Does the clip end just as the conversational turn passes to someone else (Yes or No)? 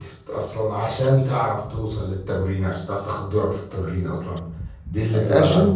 Yes